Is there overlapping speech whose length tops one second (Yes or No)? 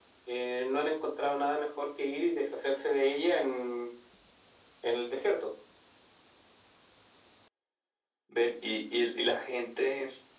No